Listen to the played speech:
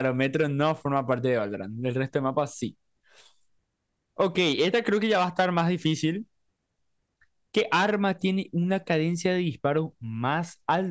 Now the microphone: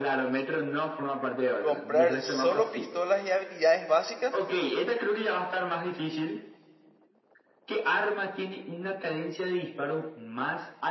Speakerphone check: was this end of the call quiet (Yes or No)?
No